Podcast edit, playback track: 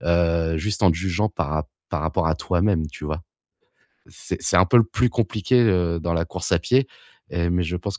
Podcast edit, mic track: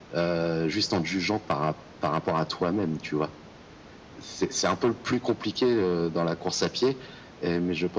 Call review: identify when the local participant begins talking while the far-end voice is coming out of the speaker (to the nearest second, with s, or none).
none